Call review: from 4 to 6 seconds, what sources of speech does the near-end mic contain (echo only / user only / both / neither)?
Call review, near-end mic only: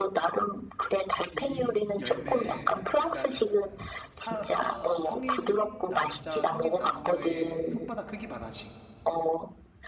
both